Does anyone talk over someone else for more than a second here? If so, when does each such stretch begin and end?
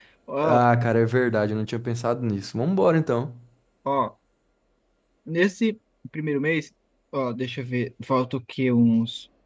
none

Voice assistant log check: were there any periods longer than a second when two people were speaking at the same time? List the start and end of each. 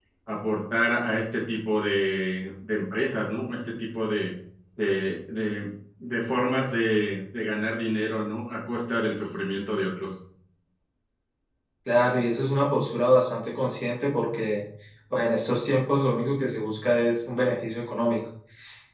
none

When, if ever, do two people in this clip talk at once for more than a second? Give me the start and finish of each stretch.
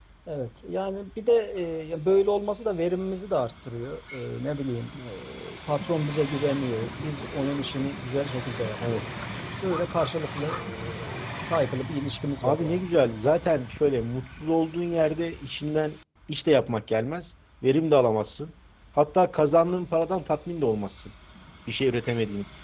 none

